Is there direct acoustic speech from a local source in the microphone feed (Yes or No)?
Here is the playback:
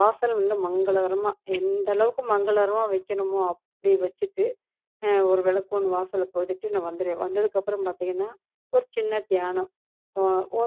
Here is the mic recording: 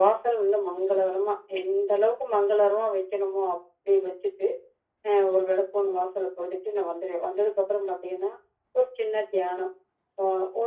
No